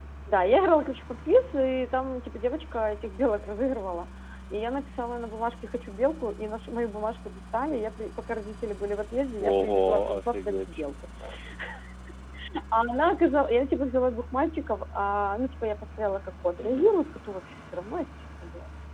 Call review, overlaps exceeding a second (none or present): present